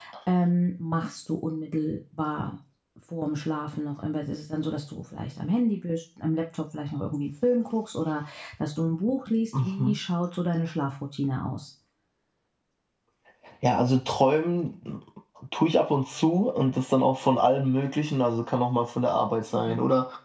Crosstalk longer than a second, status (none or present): none